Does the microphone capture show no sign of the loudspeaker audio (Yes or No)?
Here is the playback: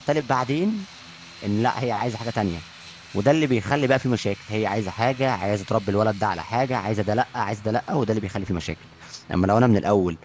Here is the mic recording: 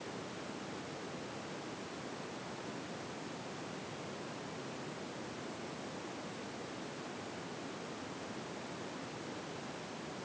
Yes